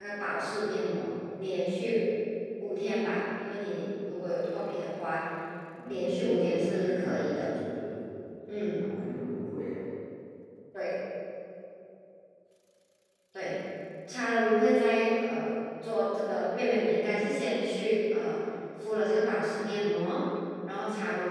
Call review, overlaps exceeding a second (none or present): present